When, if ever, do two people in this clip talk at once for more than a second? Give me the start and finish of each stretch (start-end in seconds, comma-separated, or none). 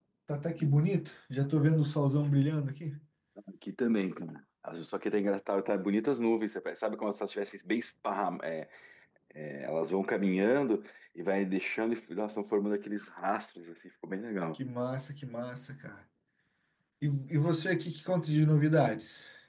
none